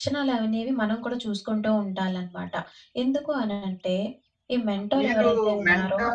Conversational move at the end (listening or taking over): taking over